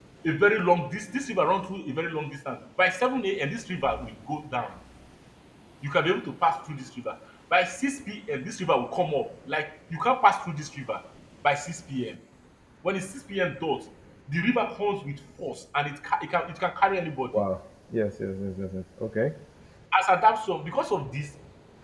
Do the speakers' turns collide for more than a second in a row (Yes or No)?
No